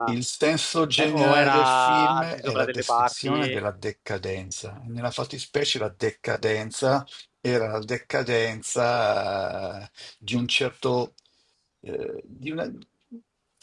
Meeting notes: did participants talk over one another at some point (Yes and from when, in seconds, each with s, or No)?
Yes, from 1.0 s